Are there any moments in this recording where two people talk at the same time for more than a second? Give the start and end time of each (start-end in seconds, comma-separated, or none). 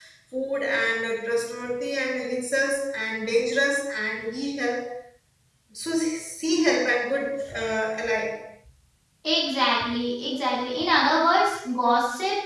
none